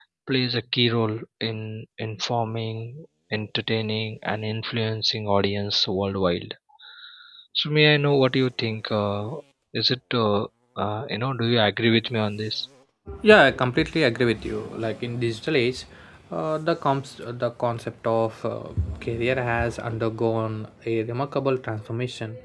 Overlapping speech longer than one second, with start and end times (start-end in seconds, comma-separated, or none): none